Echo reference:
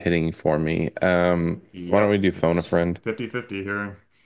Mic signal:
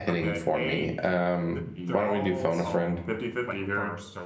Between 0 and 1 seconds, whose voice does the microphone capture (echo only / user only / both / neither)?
both